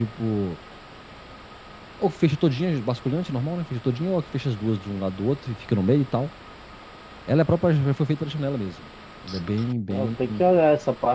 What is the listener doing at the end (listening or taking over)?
taking over